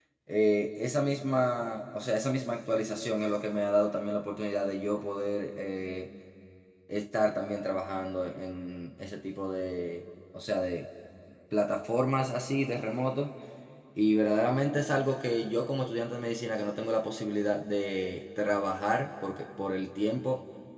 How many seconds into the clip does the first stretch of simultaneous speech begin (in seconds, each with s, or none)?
none